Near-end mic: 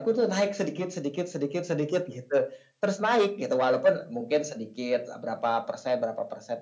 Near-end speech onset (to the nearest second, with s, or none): none